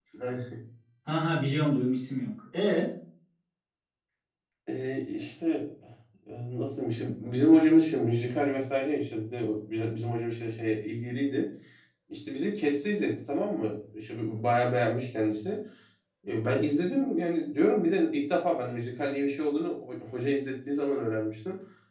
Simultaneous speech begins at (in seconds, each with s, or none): none